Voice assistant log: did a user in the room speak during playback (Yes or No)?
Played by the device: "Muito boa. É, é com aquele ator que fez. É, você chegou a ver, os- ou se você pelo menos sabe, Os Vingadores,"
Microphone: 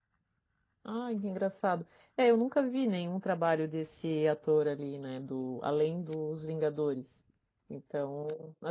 Yes